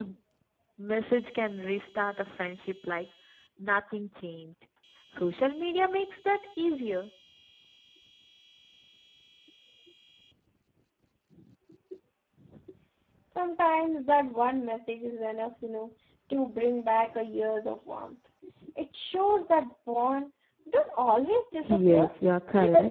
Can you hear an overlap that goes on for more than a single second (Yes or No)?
No